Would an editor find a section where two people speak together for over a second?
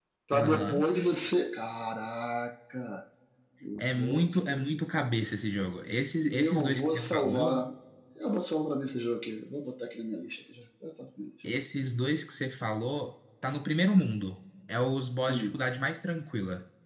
Yes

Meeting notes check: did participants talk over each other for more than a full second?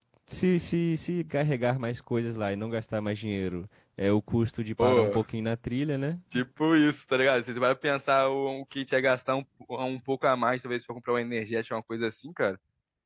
No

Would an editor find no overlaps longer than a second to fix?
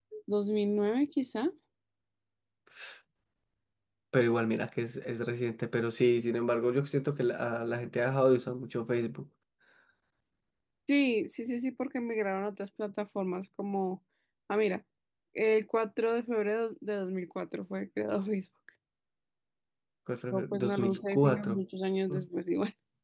No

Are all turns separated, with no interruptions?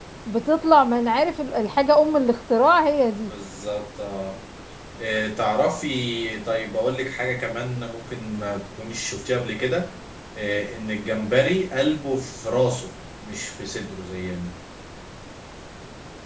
Yes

